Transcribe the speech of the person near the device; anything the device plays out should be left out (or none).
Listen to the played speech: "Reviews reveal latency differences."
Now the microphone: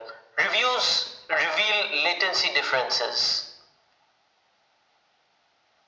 none